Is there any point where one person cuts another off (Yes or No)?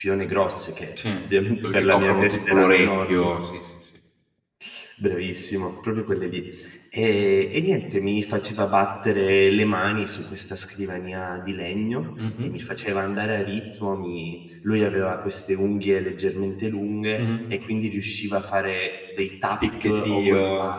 Yes